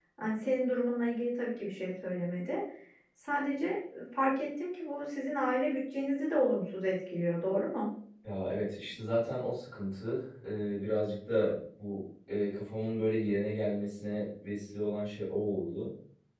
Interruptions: none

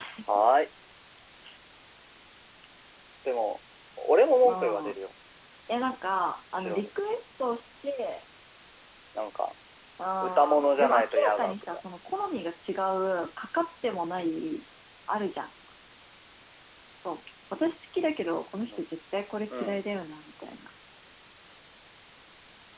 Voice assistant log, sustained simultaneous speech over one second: present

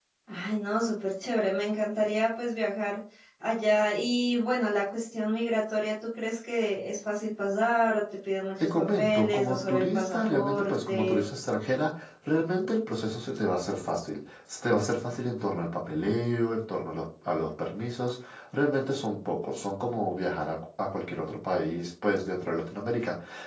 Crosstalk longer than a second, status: present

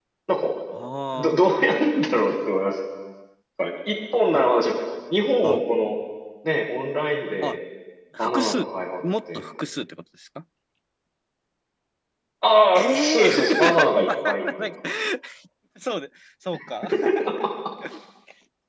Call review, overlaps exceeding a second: present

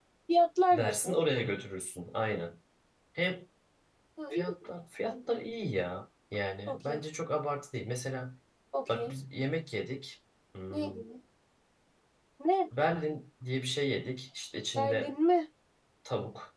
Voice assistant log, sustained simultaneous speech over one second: none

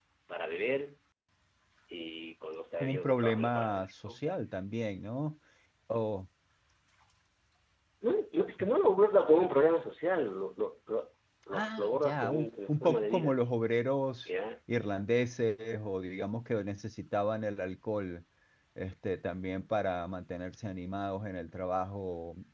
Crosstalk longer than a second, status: present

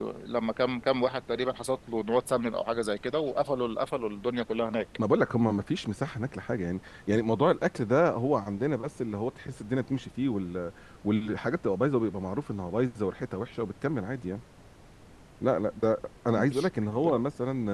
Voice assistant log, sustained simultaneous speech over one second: none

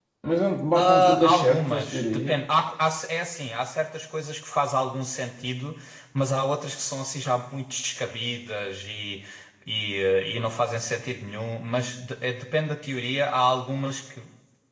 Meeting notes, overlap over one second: present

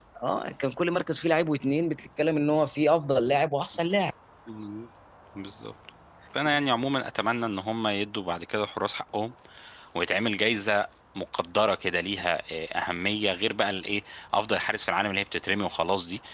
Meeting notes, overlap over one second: none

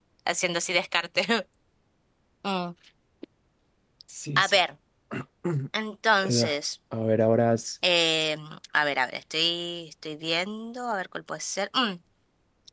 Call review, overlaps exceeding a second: none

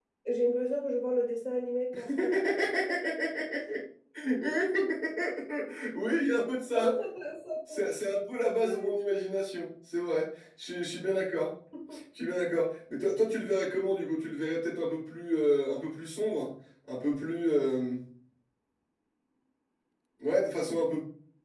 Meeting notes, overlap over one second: none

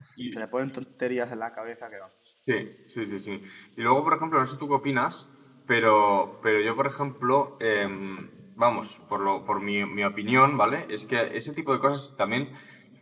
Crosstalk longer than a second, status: none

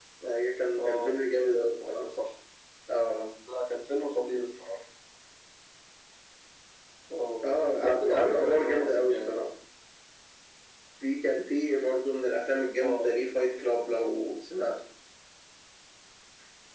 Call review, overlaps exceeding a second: present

